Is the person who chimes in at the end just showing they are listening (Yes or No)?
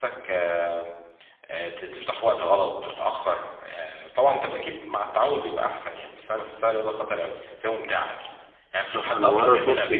No